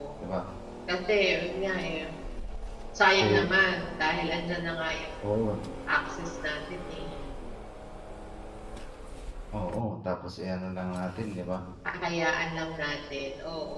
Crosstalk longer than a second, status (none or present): none